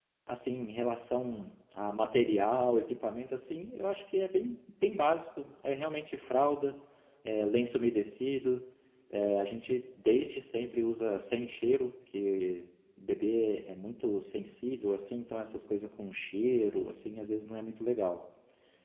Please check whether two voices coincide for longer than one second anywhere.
No

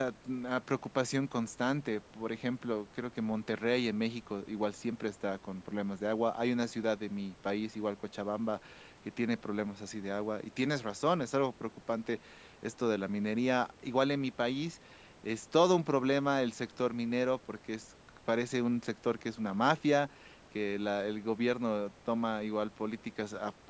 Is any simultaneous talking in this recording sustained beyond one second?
No

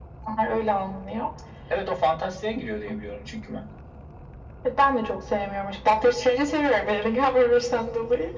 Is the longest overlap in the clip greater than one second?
No

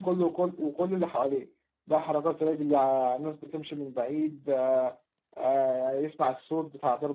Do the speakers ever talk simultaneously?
No

